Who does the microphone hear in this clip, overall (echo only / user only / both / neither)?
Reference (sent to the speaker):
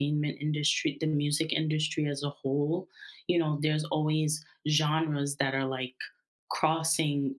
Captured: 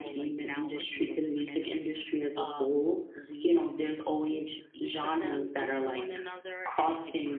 both